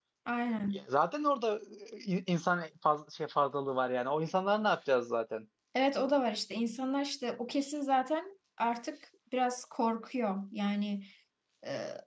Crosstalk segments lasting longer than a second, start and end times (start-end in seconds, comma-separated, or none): none